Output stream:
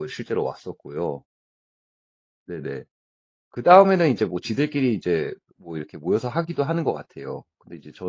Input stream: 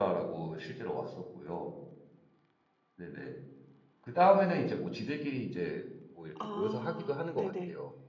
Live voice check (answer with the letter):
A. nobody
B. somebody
B